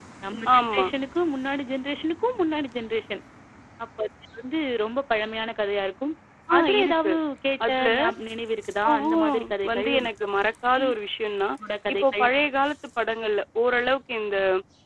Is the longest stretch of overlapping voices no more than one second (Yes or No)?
No